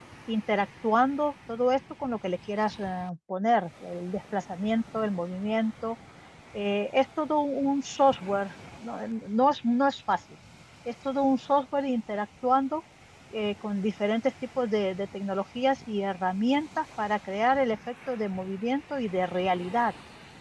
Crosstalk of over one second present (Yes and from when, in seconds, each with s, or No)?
No